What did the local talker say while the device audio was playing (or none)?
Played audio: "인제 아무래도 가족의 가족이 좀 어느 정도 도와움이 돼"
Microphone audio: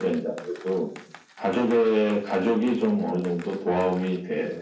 none